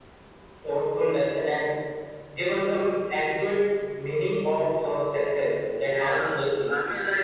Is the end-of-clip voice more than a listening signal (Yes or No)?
Yes